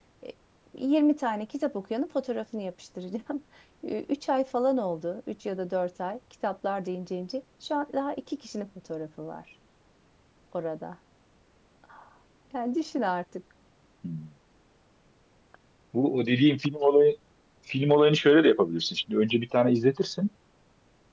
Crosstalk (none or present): none